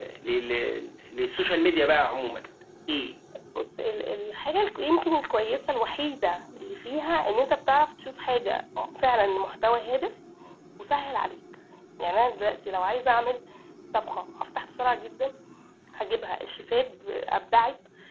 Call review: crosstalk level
none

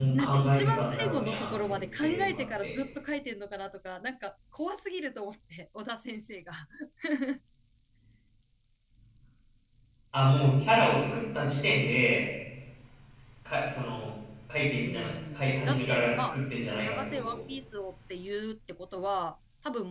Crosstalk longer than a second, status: present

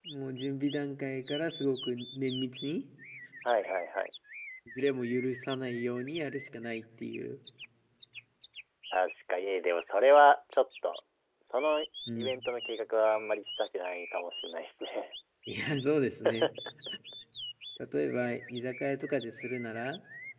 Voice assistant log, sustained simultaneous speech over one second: none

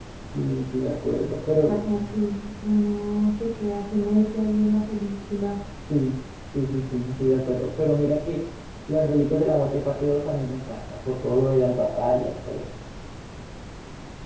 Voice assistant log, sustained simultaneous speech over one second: none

